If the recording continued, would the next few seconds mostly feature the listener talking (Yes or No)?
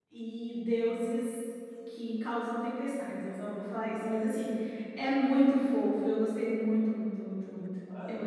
Yes